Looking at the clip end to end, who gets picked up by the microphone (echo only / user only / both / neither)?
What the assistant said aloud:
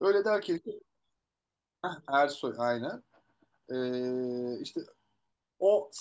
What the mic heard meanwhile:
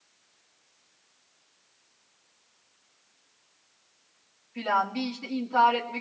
user only